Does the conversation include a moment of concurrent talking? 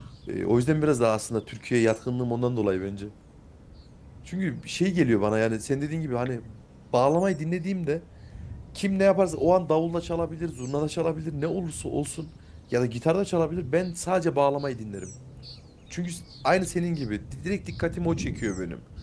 No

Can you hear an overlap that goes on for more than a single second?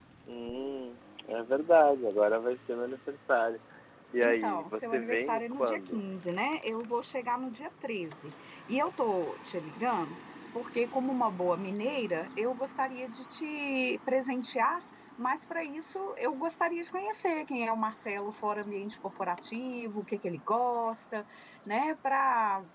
Yes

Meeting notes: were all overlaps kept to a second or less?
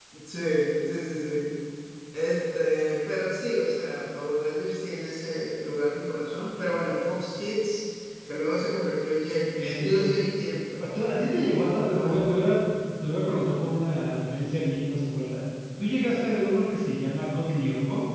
Yes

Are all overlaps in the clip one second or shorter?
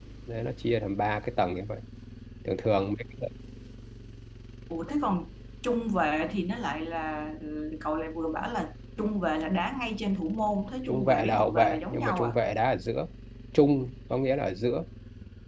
No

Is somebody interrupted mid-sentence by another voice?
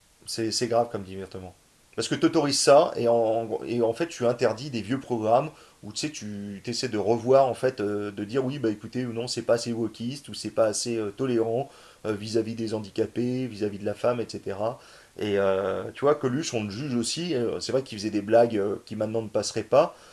No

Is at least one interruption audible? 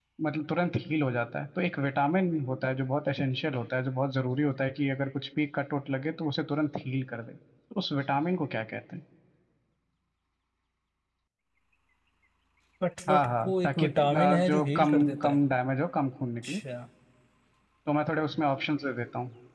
Yes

